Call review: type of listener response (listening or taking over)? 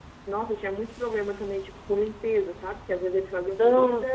listening